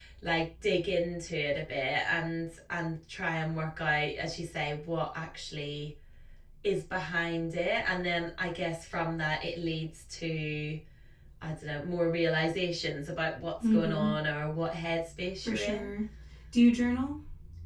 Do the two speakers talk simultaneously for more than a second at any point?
No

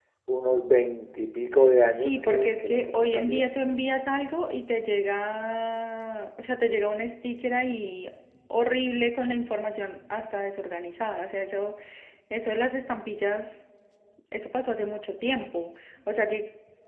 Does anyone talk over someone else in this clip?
Yes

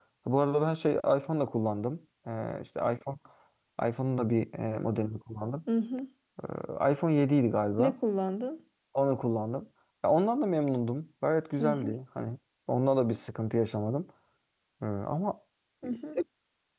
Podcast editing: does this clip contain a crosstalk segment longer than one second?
No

